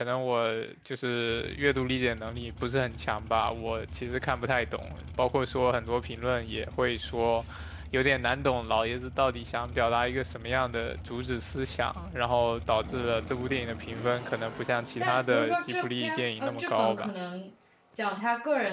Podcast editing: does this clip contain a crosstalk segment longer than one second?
Yes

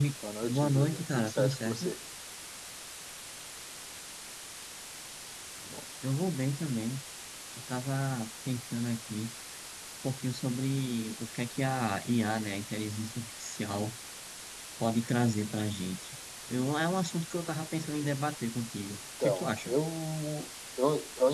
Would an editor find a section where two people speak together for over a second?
Yes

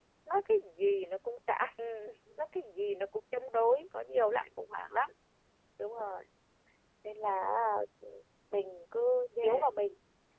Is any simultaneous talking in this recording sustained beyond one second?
No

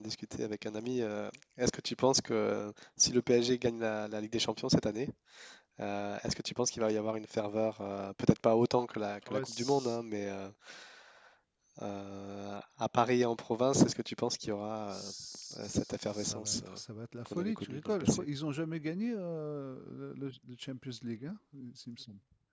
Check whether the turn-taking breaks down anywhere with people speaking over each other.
Yes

